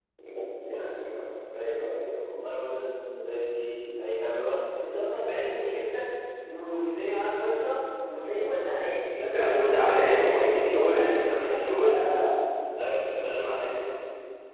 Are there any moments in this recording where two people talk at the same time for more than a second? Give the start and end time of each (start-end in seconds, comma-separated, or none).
9.3-12.0